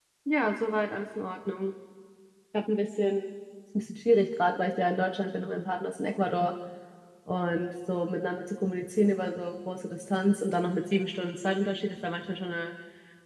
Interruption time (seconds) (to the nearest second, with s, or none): none